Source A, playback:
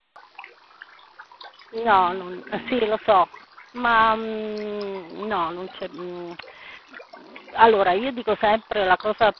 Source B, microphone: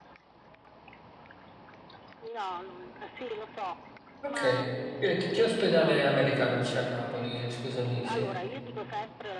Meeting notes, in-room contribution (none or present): present